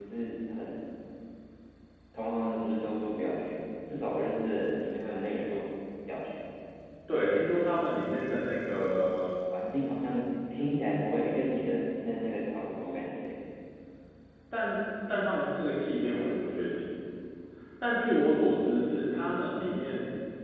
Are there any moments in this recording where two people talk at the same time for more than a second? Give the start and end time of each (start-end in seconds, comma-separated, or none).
none